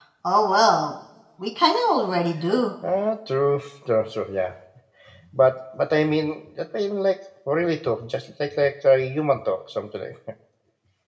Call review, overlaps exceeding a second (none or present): none